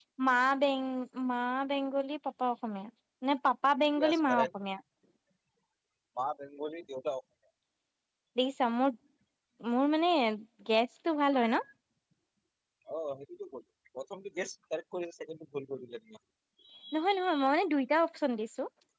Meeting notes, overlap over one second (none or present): none